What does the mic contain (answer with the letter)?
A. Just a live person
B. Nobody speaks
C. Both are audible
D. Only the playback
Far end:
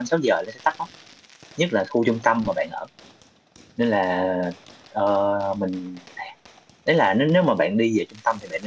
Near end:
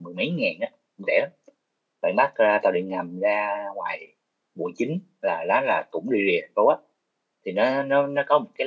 A